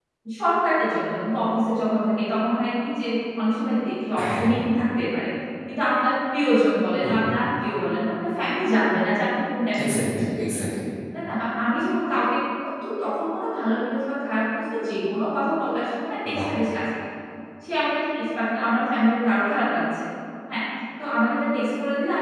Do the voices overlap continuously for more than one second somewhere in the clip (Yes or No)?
No